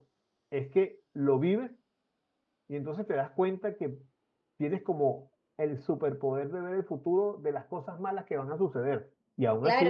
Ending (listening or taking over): taking over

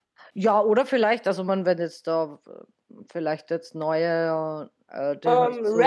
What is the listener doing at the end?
taking over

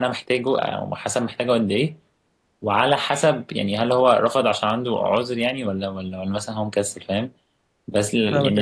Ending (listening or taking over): listening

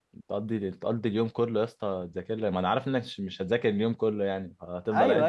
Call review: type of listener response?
taking over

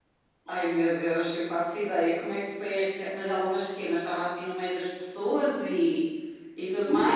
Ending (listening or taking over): taking over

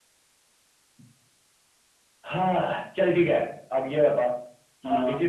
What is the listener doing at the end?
listening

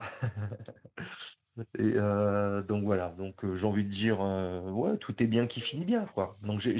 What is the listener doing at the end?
listening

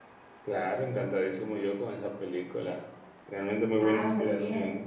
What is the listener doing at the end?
taking over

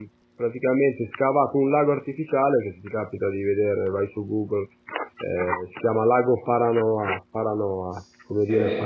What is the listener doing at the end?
listening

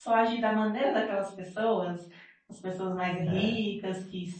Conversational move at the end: listening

